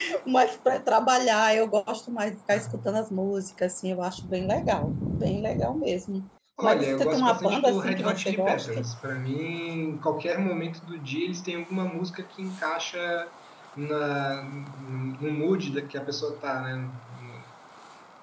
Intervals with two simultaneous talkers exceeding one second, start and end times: 6.6-8.8

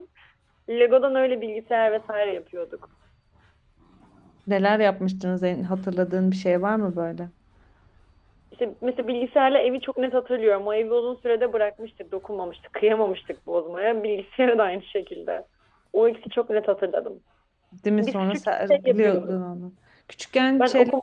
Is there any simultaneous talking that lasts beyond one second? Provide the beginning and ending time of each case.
18.0-19.3

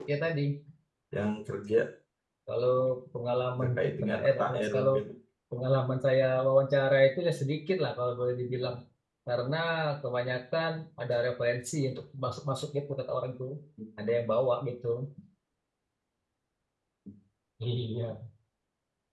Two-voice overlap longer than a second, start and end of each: 3.6-4.9

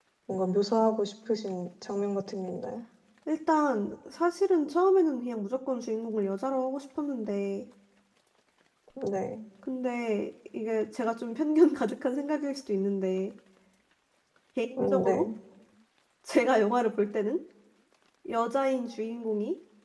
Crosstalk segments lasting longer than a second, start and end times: none

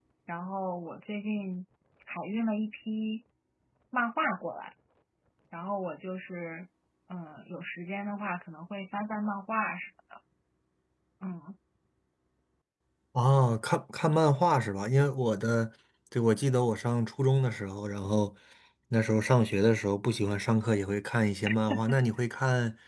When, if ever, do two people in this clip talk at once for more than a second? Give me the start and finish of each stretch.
none

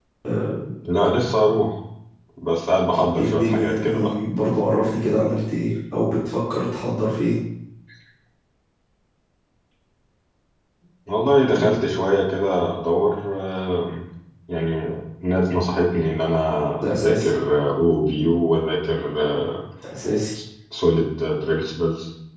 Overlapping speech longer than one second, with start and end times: 2.9-4.1

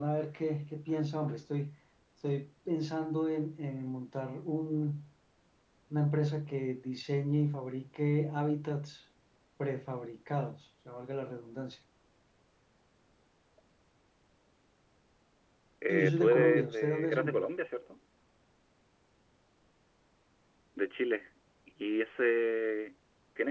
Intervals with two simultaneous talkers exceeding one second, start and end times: 15.9-17.4

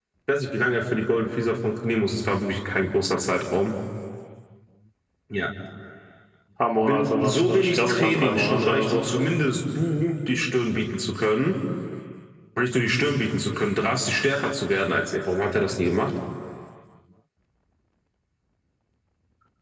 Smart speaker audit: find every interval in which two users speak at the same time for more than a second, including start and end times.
6.8-9.0

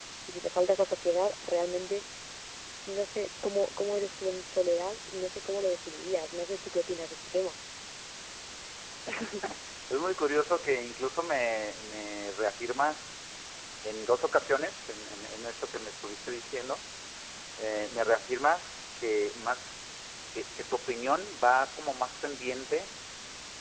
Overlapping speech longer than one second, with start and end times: none

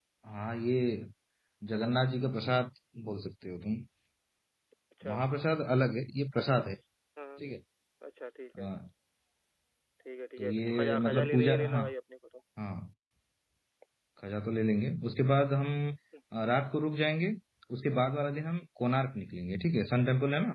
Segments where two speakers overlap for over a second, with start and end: 10.4-11.8

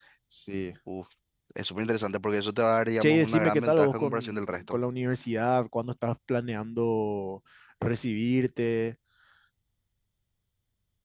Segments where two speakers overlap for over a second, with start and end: 3.0-4.8

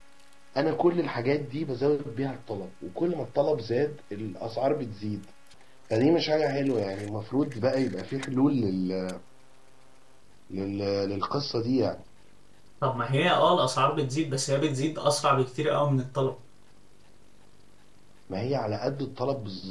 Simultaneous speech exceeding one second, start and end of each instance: none

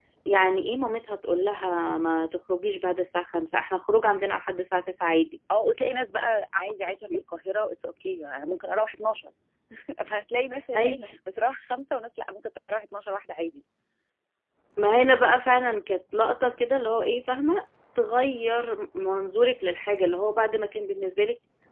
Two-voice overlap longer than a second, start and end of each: none

